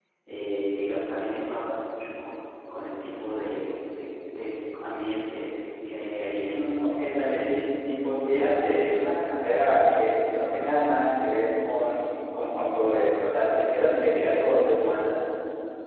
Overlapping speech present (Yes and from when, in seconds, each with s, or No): Yes, from 6.5 s